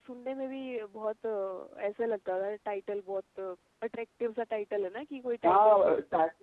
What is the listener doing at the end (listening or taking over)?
taking over